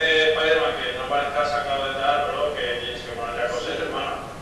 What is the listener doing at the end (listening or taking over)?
taking over